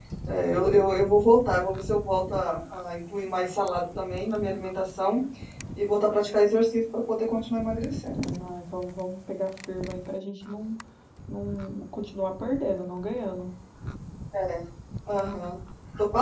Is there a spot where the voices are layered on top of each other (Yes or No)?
No